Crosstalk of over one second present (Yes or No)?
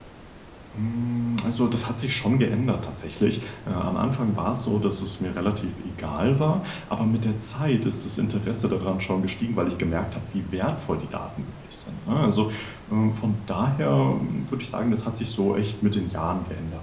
No